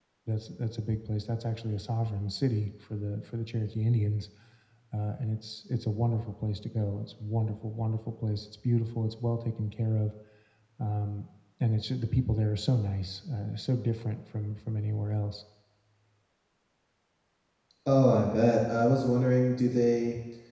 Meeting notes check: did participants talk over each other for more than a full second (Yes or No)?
No